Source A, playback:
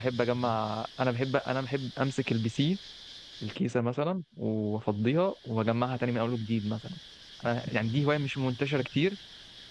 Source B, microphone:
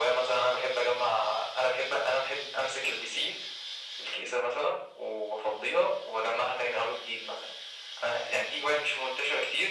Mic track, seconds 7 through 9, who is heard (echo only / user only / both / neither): echo only